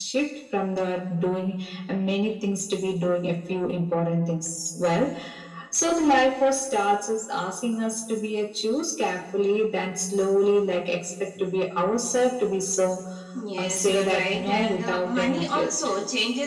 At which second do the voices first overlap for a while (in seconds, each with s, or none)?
13.6 s